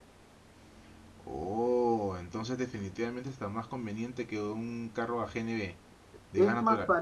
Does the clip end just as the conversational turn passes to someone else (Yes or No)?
Yes